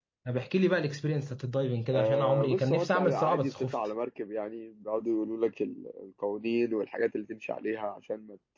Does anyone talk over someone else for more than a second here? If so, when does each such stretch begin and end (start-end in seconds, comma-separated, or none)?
1.9-3.7